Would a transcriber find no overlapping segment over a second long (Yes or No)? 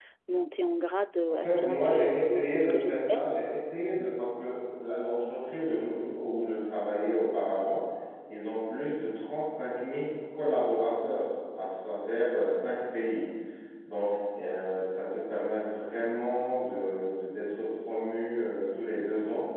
No